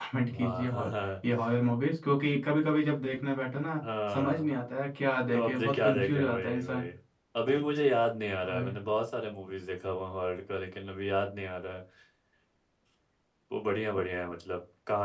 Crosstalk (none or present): present